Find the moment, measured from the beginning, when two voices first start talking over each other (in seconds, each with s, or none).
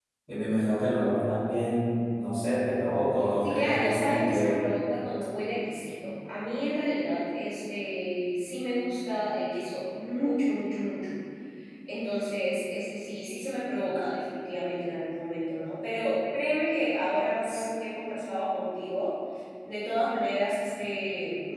3.4 s